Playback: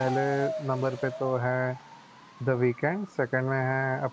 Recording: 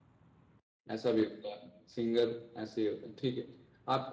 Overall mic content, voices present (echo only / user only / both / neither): user only